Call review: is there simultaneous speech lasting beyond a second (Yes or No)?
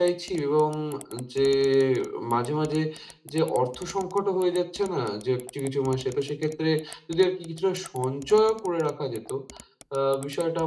No